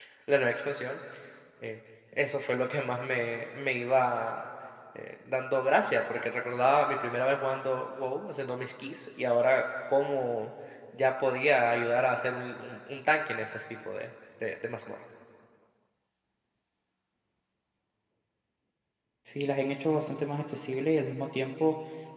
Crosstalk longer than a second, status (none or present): none